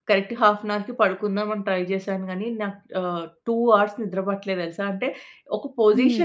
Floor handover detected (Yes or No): No